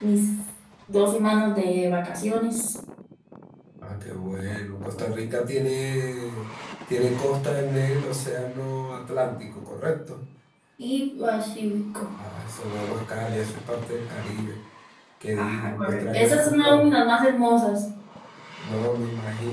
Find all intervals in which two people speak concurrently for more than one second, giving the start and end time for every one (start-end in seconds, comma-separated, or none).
15.3-16.9